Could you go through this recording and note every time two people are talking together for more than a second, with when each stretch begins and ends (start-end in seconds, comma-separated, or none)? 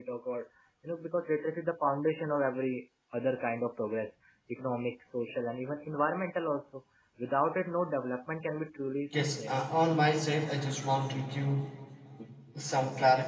none